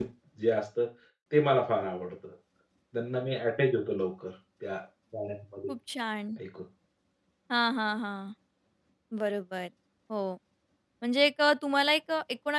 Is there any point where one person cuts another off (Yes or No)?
No